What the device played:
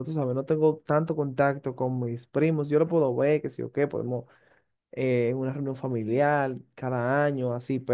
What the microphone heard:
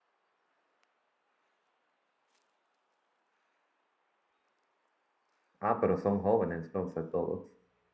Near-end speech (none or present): present